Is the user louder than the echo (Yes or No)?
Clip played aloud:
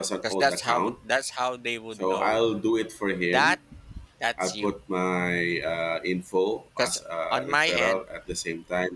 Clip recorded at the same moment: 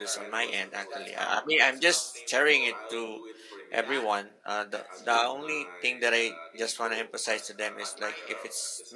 Yes